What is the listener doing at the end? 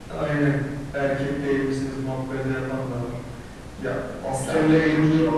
taking over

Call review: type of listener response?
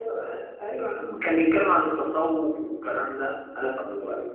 listening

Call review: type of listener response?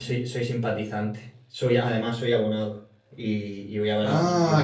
taking over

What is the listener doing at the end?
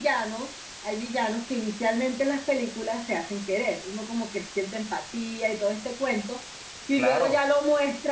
listening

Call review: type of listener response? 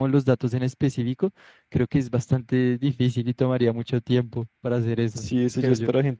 taking over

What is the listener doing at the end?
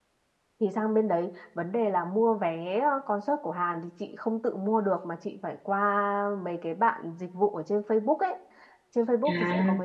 listening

